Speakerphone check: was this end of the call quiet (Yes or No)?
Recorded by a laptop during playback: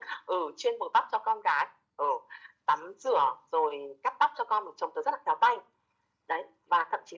Yes